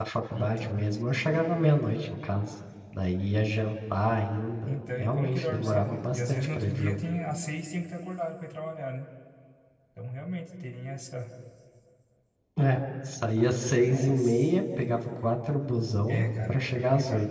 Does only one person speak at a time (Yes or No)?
No